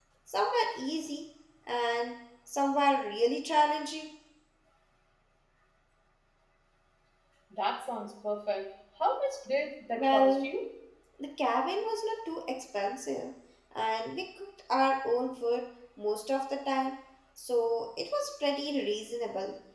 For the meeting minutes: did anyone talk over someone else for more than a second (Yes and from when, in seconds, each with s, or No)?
No